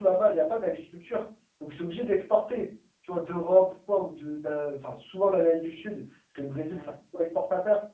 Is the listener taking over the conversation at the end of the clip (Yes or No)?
No